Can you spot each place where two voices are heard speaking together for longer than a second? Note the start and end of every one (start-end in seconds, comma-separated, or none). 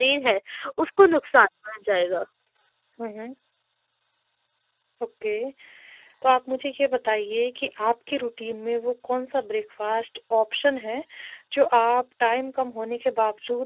none